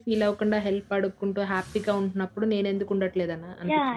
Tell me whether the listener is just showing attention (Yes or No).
No